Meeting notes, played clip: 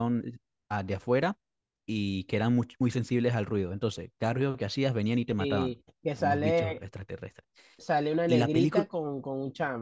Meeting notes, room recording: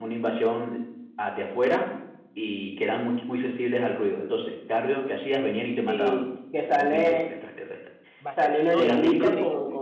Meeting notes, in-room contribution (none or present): present